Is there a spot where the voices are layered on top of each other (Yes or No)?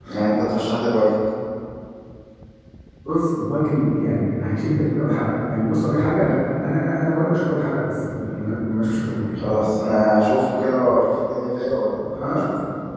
No